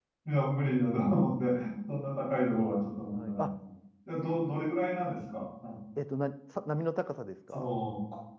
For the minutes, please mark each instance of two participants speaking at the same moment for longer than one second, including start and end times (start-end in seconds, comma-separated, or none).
none